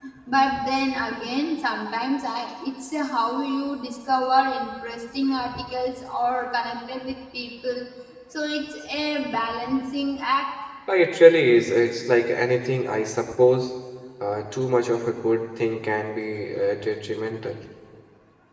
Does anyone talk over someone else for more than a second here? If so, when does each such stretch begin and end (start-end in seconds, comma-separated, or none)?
none